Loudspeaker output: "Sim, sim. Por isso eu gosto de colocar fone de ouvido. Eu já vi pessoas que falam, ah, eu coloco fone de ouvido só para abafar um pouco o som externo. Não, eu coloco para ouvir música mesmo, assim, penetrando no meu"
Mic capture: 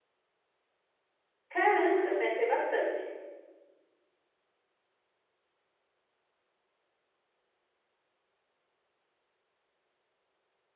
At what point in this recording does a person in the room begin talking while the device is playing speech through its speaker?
1.5 s

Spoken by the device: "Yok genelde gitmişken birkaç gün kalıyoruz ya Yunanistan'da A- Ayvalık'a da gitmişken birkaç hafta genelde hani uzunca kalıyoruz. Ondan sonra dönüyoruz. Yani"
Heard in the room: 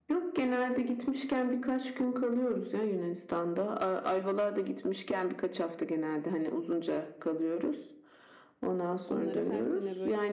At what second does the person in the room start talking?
9.1 s

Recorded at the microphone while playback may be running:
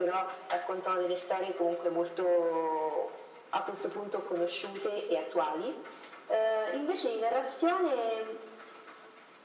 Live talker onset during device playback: none

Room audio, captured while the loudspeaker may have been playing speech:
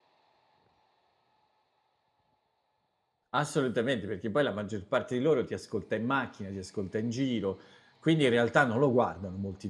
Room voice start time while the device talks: 3.3 s

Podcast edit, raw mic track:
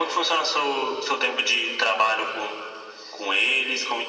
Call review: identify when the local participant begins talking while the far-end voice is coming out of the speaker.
none

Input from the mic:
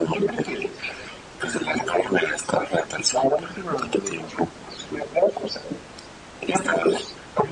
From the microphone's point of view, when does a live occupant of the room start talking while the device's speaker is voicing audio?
none

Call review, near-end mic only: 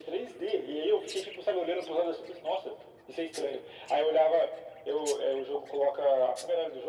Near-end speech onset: none

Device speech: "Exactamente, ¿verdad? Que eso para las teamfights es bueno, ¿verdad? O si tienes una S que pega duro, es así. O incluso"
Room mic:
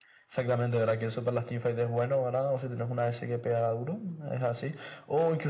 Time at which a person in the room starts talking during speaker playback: none

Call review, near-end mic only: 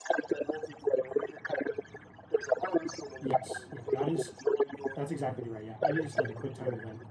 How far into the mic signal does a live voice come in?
3.2 s

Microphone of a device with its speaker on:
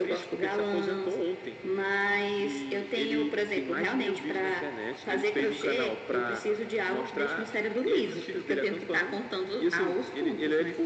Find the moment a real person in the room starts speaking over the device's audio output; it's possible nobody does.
none

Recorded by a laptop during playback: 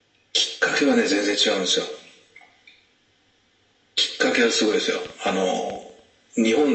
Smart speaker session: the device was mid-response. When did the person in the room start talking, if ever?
none

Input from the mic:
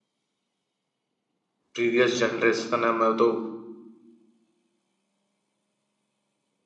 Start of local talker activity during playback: 1.7 s

